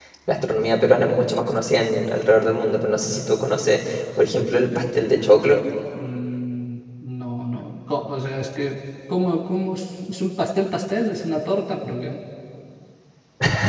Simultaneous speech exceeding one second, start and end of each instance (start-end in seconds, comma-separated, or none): none